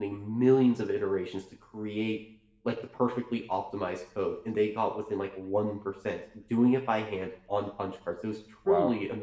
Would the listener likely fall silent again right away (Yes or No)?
Yes